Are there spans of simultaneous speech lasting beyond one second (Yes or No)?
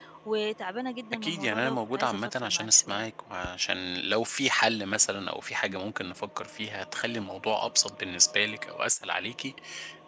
Yes